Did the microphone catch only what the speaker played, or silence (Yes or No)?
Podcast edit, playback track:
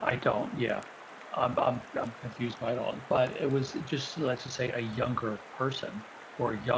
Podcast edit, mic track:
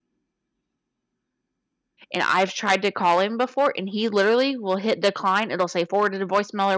No